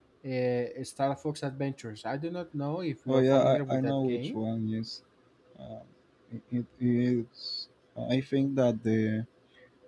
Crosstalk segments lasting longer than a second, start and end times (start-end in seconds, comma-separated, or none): 3.1-4.4